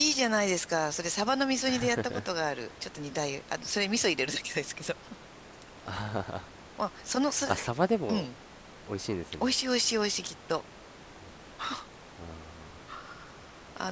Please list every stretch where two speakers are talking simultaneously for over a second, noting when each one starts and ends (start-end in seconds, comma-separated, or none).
none